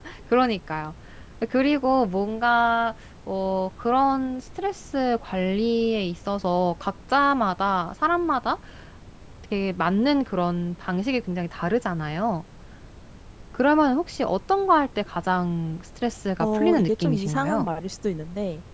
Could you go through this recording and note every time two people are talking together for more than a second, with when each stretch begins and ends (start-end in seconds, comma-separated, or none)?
16.4-17.6